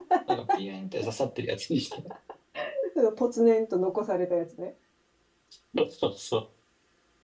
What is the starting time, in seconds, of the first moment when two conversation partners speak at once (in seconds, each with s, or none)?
none